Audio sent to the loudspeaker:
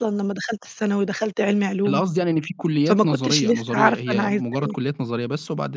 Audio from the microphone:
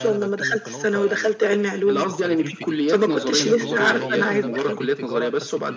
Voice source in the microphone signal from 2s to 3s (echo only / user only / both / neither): both